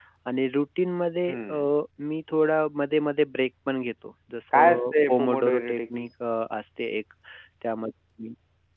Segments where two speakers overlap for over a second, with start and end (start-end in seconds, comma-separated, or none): 4.5-6.1